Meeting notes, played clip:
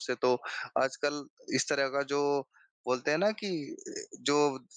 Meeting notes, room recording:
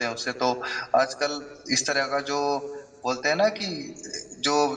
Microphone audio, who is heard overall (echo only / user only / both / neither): echo only